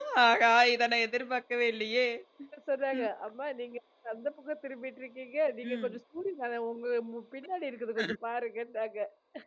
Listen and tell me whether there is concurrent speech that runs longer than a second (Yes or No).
No